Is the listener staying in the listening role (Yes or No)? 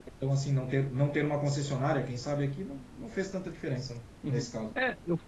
No